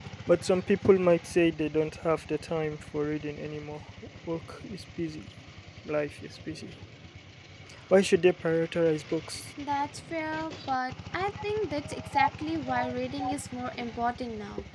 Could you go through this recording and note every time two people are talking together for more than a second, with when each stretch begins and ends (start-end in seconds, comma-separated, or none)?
none